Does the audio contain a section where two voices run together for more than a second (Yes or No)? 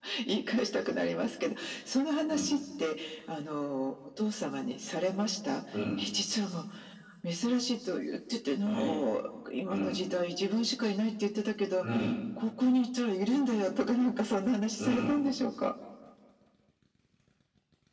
No